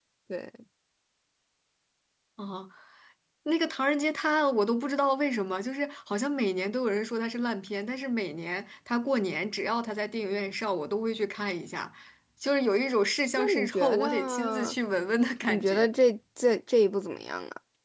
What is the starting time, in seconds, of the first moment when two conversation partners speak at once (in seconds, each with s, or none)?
13.4 s